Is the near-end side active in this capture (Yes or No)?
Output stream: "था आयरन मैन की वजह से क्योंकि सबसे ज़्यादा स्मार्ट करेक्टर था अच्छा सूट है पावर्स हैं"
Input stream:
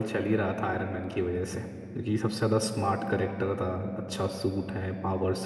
No